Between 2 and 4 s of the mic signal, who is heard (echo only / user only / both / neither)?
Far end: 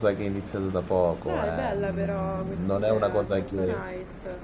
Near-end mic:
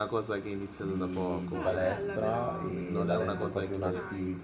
both